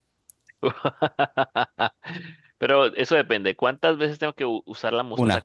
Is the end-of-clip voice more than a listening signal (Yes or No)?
No